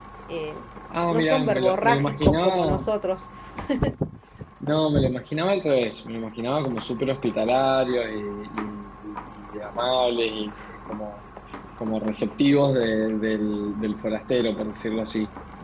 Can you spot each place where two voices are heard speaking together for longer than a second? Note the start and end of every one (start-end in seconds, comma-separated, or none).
1.1-2.8